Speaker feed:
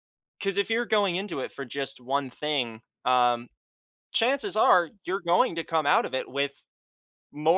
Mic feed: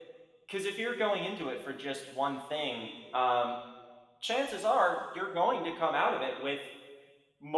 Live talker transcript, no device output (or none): none